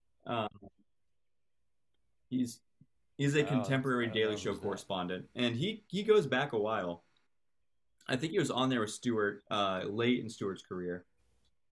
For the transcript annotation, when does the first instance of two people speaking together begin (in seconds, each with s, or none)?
3.4 s